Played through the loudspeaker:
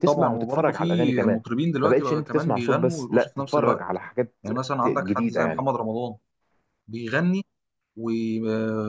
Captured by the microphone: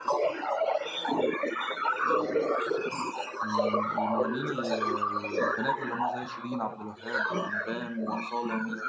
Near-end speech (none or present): present